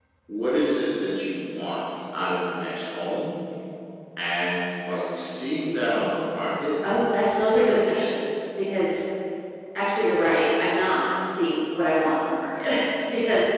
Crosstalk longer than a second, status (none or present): none